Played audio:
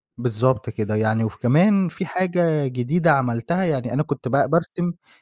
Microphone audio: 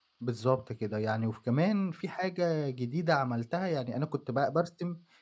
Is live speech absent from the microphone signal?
Yes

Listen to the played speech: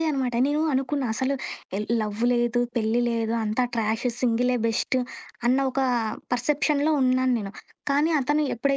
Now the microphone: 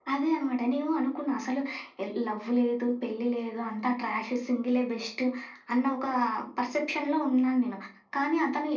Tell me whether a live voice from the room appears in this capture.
No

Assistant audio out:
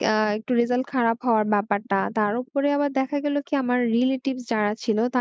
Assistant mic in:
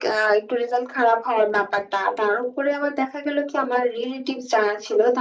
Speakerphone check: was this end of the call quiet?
Yes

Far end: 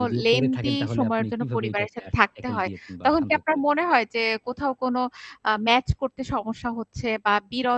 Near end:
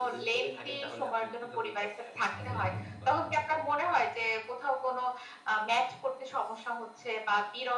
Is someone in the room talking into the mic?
Yes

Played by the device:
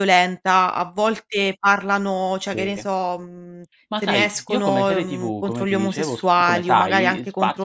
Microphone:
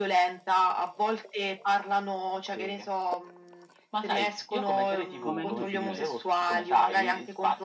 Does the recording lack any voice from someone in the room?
No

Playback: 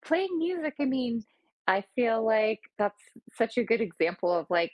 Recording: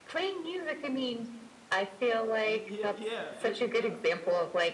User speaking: Yes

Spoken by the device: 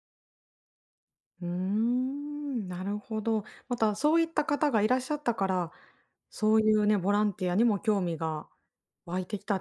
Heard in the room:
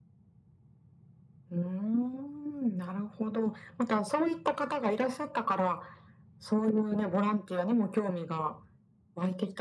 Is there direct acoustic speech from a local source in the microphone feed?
No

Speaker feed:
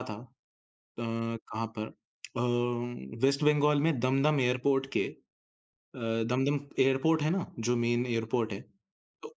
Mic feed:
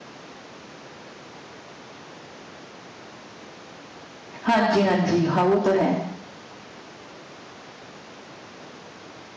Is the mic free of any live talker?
No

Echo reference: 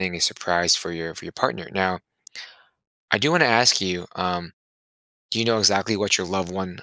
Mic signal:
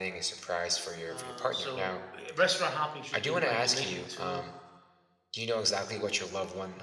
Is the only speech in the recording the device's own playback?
No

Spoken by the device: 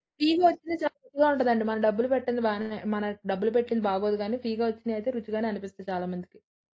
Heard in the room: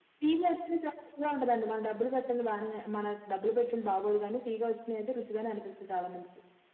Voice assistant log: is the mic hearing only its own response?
Yes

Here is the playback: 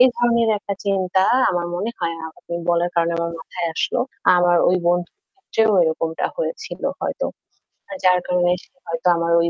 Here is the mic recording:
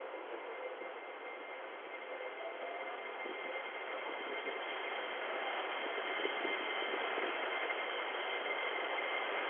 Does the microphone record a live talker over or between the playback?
No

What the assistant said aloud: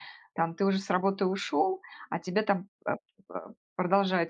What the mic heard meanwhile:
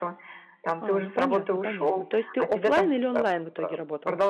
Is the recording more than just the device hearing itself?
Yes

